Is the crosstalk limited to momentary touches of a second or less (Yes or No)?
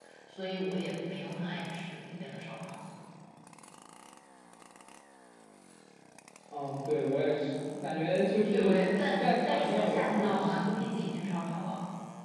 No